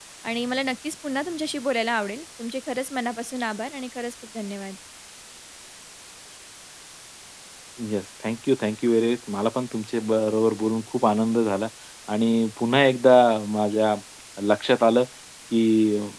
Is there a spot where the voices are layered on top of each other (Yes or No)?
No